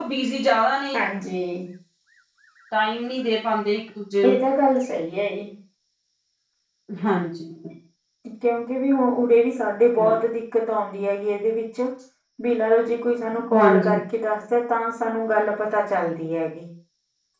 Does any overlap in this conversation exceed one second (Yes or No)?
No